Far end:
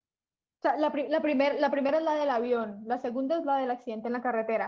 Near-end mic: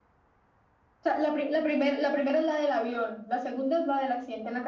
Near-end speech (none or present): none